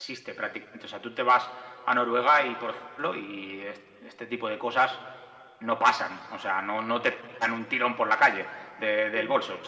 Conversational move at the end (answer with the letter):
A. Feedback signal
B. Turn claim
A